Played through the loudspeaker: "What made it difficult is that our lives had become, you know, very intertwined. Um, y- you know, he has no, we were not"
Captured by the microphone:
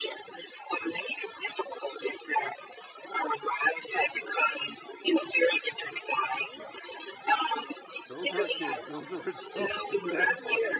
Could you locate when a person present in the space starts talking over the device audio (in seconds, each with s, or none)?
8.1 s